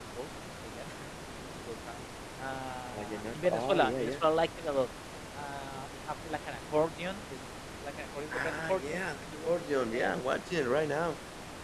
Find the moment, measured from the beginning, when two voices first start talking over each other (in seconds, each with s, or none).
2.9 s